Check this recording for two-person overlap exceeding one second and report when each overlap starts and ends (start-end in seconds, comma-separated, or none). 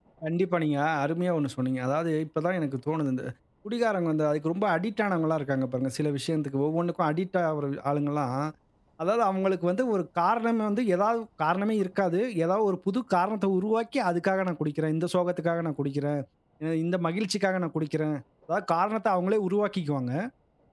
none